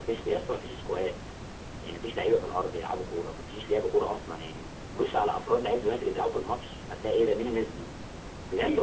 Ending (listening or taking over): taking over